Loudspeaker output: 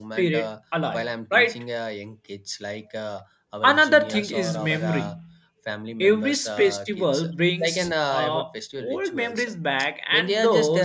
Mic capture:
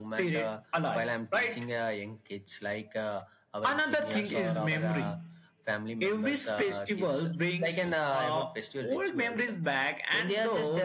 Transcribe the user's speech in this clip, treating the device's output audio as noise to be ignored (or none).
none